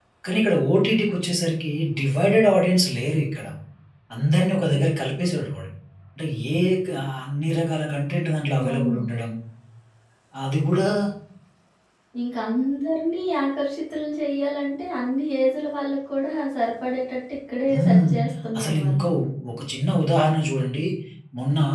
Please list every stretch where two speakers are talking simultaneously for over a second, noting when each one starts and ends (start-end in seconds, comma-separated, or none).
none